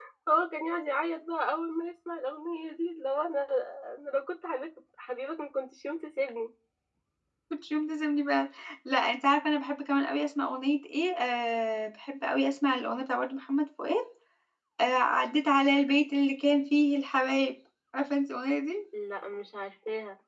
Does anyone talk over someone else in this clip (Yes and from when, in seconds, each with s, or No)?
No